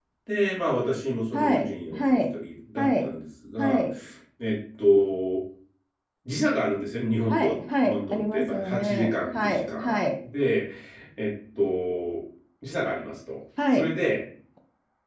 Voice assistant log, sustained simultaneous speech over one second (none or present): present